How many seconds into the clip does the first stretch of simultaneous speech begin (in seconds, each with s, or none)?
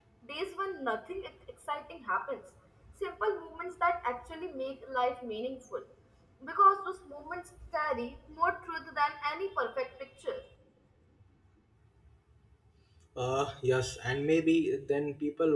none